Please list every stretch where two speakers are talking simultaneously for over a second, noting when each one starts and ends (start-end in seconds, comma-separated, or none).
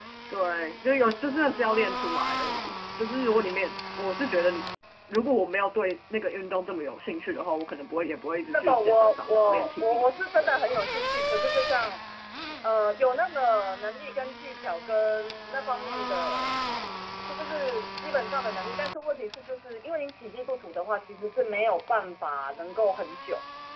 8.4-10.6